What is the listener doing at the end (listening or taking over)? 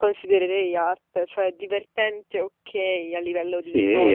taking over